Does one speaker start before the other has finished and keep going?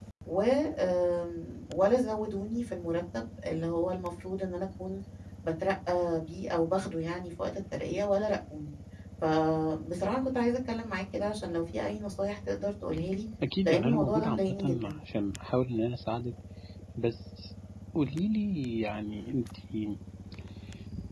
Yes, from 13.6 s

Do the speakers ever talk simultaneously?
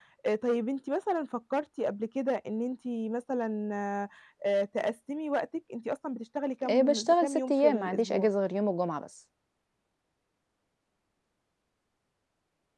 Yes, from 6.6 s

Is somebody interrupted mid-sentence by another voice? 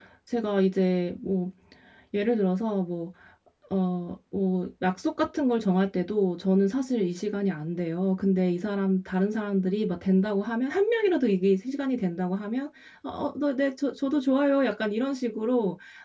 No

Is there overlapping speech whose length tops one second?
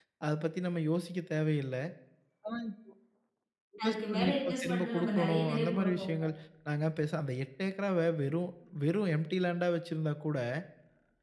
Yes, from 3.8 s

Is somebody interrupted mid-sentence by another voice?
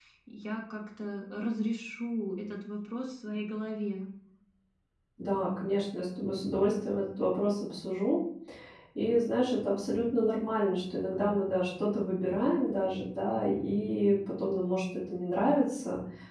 No

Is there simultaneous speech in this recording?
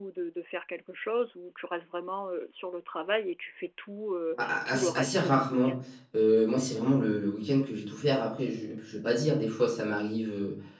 Yes, from 4.4 s

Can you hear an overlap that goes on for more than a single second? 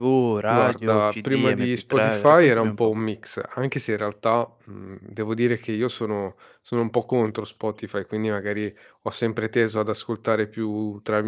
Yes, from 0.5 s

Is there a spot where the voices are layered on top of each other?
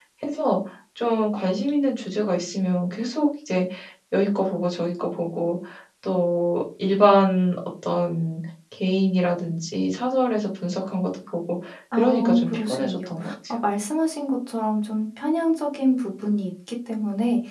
Yes, from 12.0 s

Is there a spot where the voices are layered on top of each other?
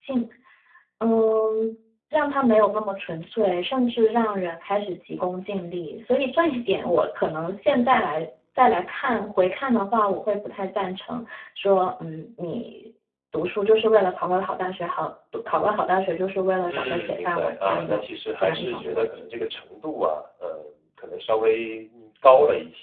Yes, from 16.7 s

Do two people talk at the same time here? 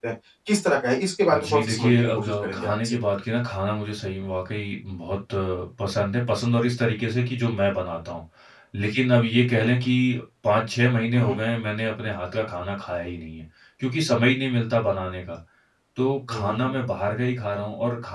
Yes, from 1.3 s

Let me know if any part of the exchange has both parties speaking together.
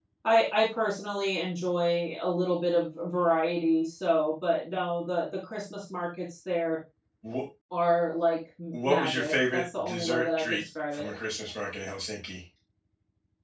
Yes, from 8.7 s

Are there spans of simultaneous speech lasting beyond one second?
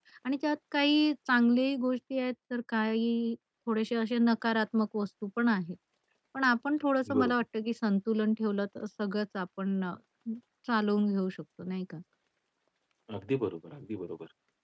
No

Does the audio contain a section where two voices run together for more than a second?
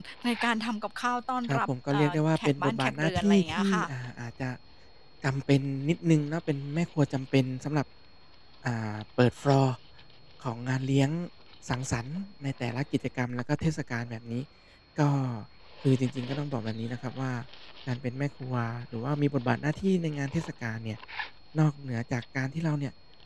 Yes, from 1.5 s

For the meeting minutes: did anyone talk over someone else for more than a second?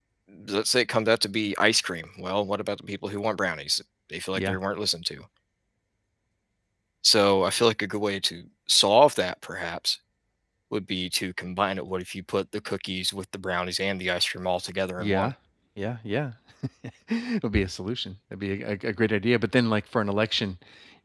No

